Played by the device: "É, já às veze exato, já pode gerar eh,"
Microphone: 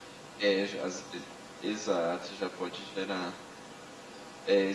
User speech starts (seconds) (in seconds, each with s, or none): none